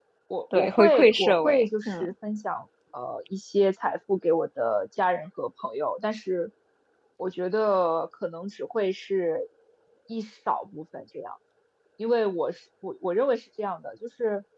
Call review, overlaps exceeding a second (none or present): present